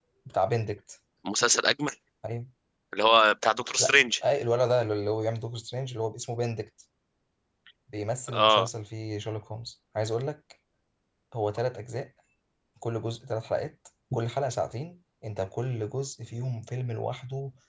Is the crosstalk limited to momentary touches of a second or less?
Yes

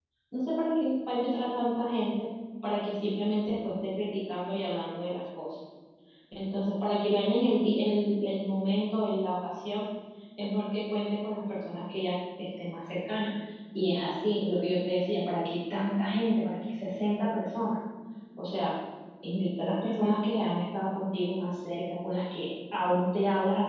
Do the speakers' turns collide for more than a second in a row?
No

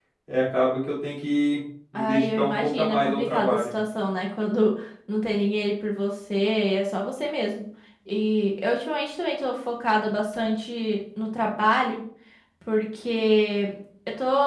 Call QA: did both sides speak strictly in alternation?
No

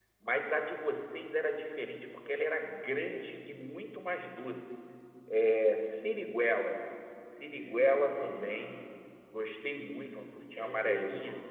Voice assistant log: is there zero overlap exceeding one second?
No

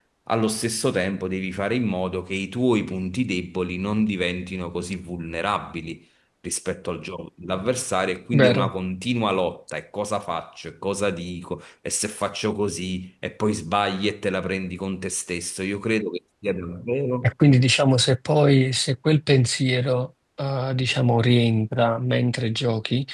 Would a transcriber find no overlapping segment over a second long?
Yes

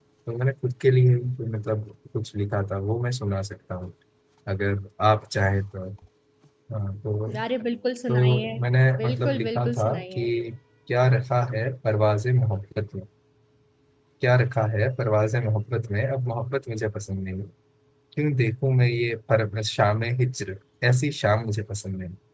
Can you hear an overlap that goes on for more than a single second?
Yes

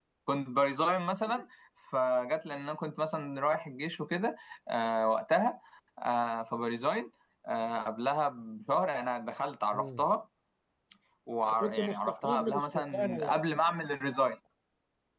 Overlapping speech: Yes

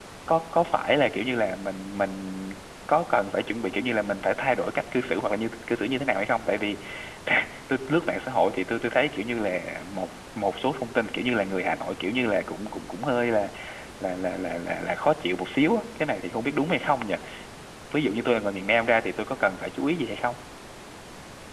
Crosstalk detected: No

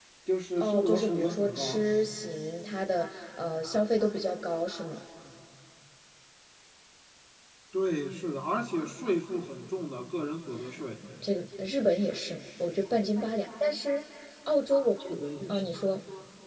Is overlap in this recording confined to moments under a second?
No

